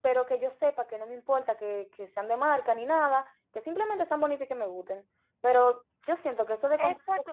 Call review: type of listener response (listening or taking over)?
taking over